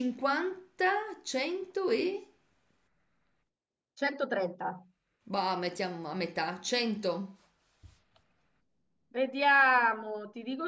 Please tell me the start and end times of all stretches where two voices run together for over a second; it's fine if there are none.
none

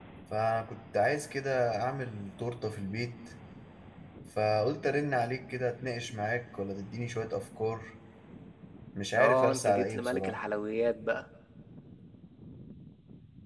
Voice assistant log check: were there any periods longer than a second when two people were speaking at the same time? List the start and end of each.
9.2-10.4

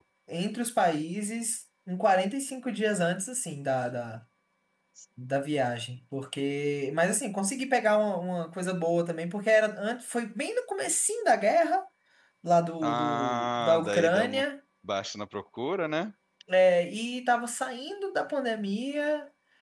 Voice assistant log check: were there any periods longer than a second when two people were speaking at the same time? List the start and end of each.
12.8-14.4

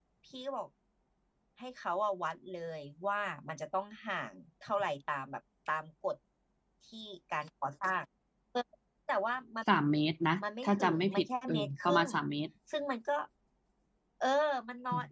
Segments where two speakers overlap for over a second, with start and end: 10.6-12.1

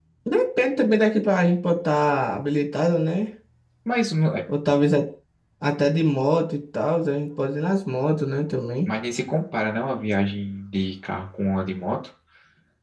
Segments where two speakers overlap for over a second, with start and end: none

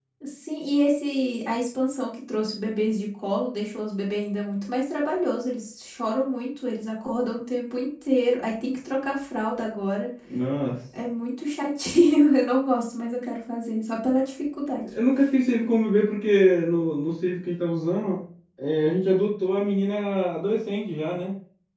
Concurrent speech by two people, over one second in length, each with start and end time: none

